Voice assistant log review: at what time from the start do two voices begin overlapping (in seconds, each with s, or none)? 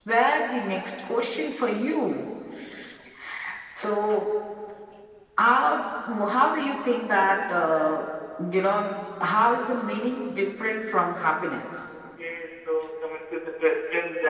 none